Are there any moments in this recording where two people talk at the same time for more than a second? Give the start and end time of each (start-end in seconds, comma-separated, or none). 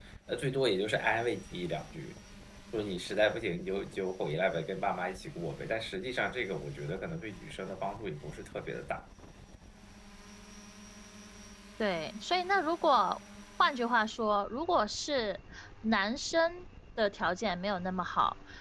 none